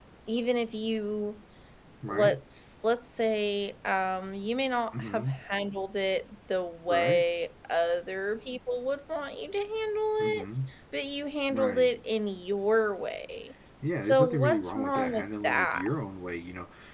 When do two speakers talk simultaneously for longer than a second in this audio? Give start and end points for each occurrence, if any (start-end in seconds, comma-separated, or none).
14.0-15.8